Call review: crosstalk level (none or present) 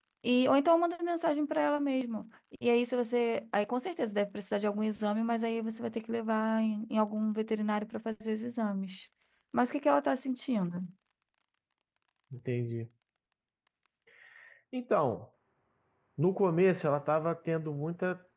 none